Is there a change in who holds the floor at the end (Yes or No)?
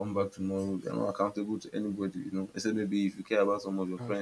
No